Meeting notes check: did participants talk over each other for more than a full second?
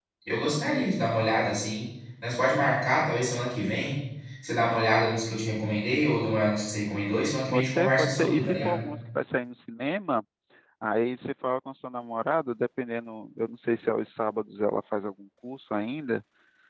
Yes, from 7.5 s

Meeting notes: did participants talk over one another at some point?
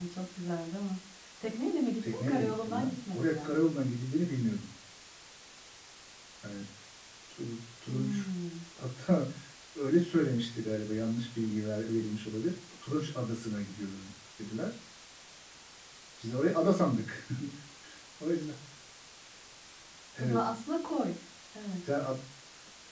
Yes, from 2.0 s

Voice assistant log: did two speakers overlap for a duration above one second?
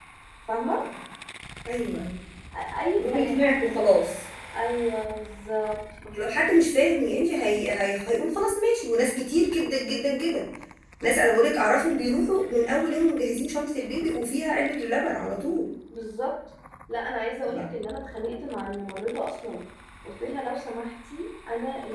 No

